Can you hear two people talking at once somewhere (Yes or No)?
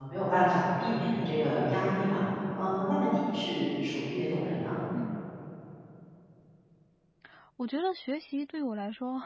No